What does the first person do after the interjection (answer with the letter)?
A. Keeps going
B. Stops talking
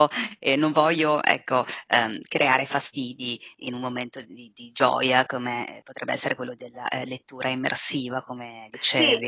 B